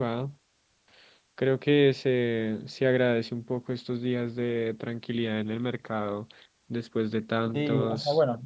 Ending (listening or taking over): taking over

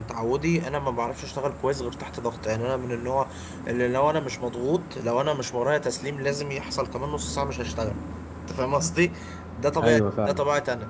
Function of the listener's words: listening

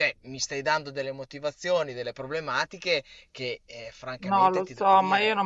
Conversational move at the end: taking over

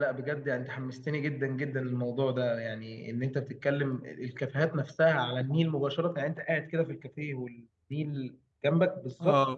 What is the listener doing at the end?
taking over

